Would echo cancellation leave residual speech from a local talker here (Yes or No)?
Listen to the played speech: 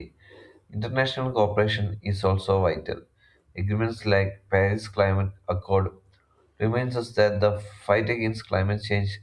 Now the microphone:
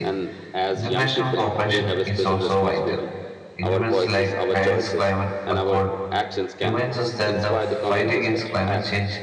Yes